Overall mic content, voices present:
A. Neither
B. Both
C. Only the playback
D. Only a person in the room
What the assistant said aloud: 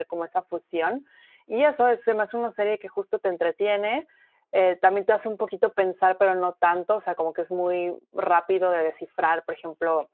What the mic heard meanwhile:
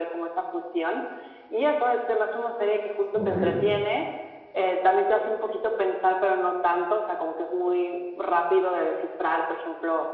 B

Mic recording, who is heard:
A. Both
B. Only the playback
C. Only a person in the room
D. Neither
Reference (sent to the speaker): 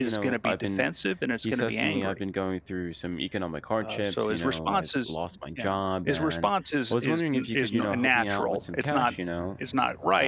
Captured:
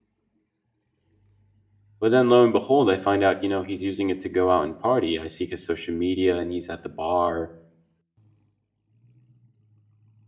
C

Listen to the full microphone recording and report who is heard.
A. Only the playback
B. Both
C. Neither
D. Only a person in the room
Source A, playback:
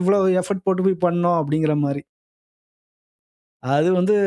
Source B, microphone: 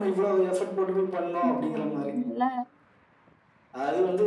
B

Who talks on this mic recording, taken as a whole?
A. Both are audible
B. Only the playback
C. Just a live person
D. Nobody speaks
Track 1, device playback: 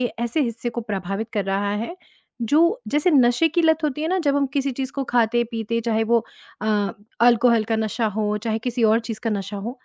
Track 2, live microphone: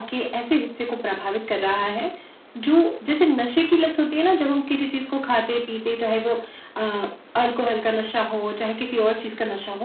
B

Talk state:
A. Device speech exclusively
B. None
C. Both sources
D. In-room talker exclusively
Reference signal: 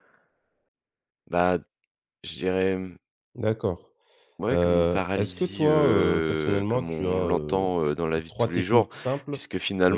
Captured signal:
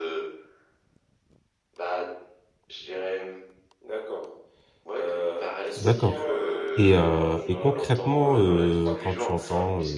C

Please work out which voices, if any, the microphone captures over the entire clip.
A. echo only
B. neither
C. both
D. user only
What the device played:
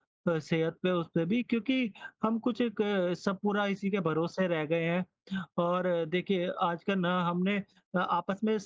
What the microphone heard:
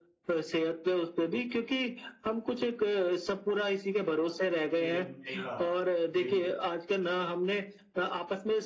C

